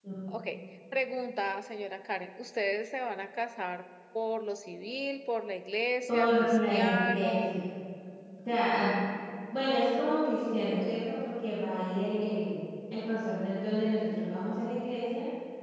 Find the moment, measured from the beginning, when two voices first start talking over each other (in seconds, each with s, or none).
6.1 s